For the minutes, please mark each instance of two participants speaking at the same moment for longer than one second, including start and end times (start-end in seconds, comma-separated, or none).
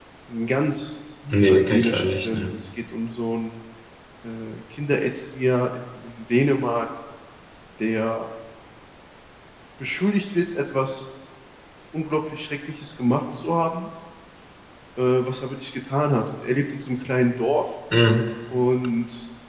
1.3-2.5